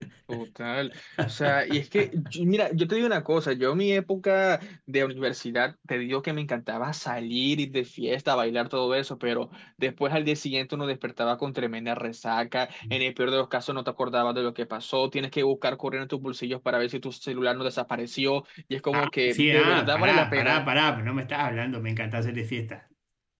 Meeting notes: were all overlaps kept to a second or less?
No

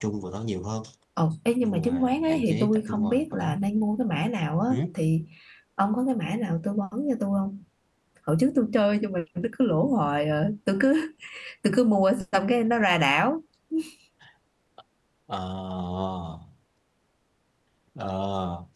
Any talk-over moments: Yes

